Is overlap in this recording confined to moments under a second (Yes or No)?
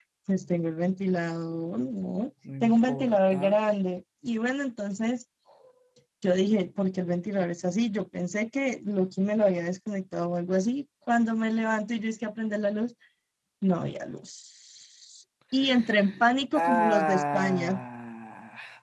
No